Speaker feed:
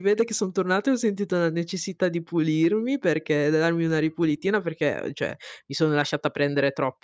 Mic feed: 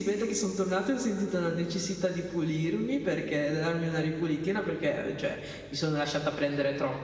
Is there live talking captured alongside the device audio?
No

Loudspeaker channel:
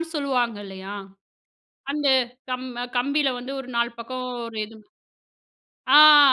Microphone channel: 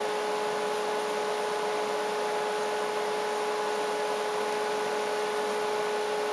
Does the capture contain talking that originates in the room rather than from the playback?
No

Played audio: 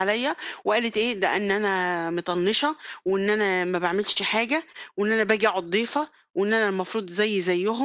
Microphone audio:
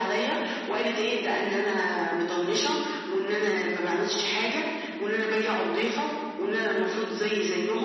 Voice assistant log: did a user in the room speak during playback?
No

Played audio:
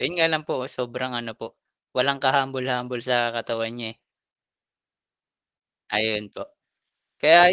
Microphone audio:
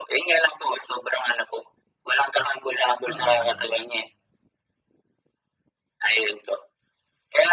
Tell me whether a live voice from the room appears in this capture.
Yes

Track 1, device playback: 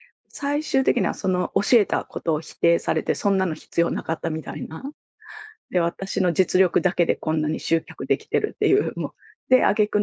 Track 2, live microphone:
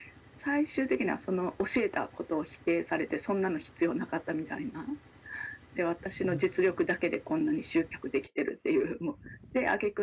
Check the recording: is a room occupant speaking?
Yes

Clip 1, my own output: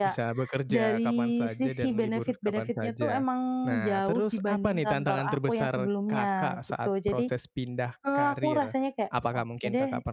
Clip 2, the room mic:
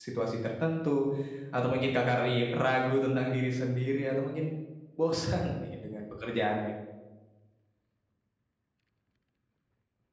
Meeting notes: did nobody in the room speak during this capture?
No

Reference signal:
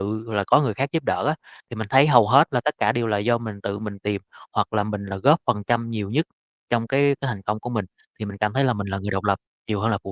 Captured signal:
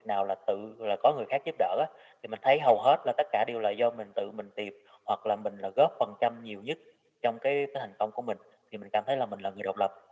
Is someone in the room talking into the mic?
No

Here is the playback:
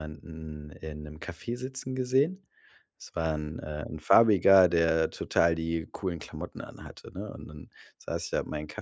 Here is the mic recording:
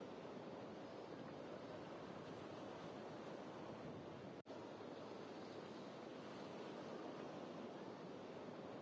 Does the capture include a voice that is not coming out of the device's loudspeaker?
No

